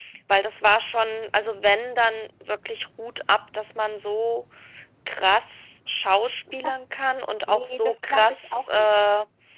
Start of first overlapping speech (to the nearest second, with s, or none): 7 s